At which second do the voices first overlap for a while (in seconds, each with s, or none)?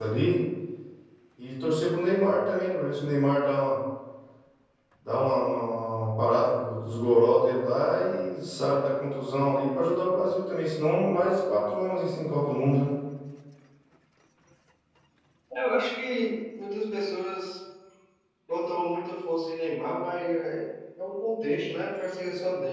none